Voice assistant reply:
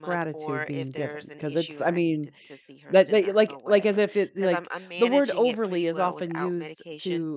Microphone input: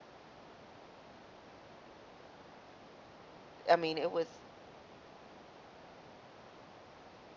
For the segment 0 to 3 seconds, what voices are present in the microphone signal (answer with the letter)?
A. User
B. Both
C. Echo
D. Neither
D